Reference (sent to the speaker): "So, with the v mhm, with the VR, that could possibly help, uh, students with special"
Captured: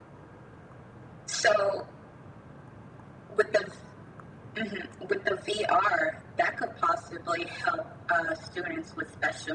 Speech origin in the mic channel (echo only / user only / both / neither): echo only